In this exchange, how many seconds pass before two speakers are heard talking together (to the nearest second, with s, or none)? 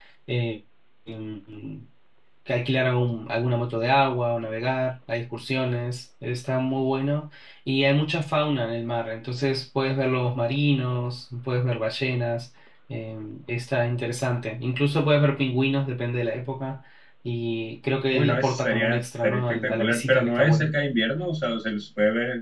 18 s